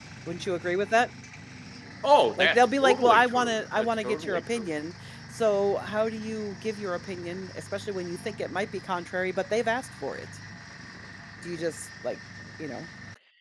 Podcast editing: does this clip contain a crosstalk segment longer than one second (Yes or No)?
Yes